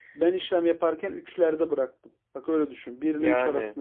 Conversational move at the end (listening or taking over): listening